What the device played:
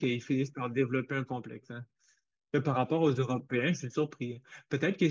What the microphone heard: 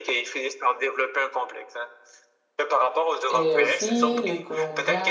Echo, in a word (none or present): present